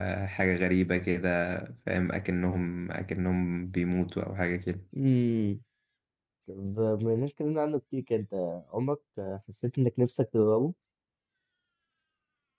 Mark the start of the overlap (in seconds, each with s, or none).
none